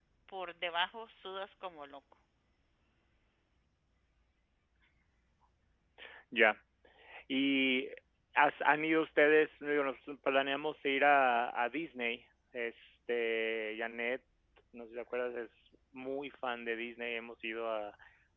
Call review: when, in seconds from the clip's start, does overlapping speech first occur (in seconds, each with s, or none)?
none